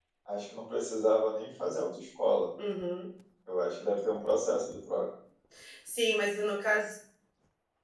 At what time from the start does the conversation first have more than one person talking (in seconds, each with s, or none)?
none